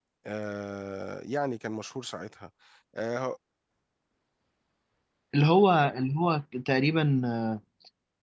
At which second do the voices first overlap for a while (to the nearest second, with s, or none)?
none